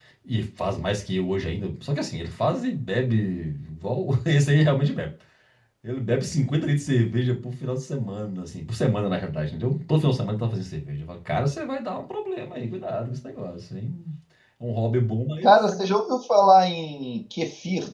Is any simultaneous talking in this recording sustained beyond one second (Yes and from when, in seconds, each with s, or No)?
No